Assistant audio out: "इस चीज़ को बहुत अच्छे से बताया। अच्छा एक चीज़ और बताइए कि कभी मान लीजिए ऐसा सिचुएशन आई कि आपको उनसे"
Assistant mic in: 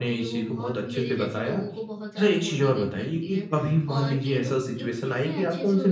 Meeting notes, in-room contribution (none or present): present